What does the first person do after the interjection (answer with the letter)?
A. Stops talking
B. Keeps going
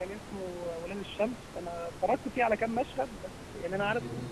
B